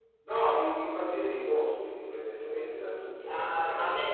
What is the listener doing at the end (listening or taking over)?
taking over